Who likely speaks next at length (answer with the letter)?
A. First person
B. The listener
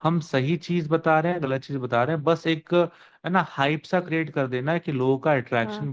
A